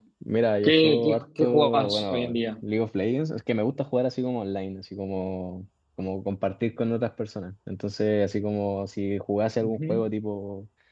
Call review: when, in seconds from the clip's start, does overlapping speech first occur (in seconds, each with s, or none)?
0.6 s